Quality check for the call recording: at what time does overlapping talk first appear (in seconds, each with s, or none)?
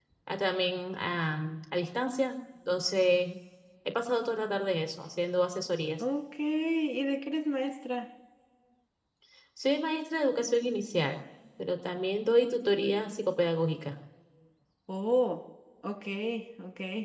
none